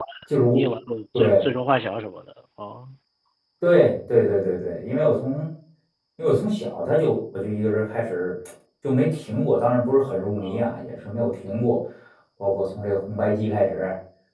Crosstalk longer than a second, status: none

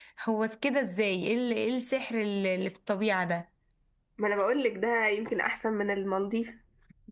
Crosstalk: none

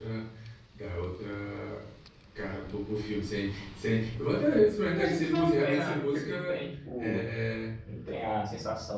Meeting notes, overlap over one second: present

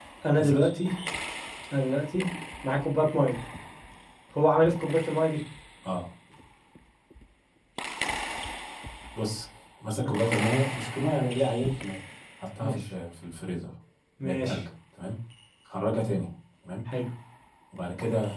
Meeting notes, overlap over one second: none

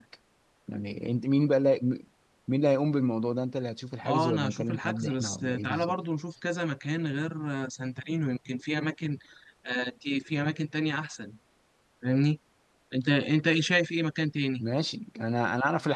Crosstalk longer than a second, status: present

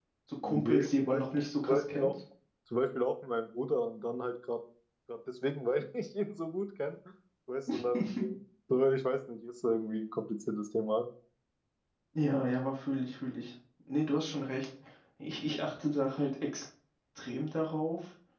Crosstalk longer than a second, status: present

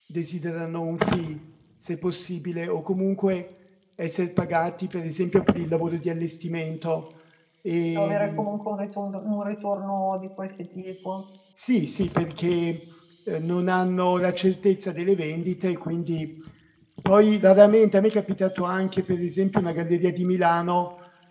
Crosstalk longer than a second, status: none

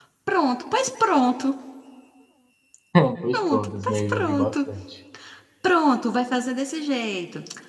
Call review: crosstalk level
present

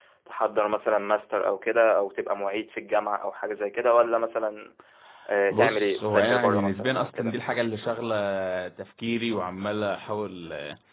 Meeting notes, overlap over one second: present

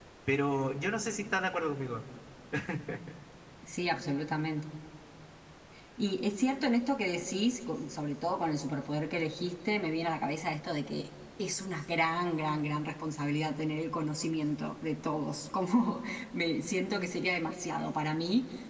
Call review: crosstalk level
none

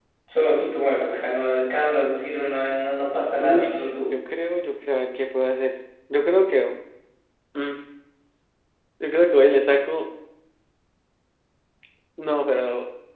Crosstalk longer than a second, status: none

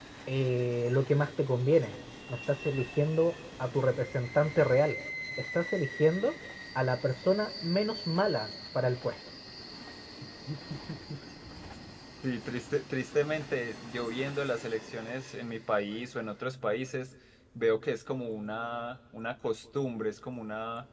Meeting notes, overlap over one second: none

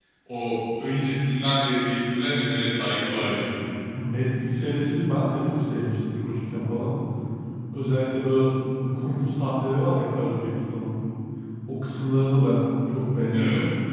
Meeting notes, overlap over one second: none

